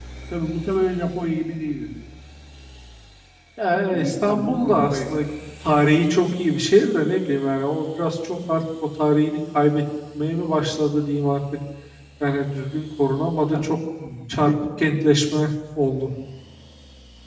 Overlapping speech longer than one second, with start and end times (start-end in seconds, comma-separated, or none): 3.9-5.1